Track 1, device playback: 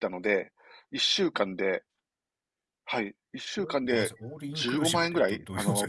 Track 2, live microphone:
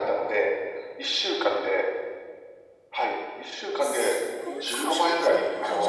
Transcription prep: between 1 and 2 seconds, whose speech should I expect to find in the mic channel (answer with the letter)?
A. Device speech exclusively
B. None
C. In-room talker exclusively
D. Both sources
A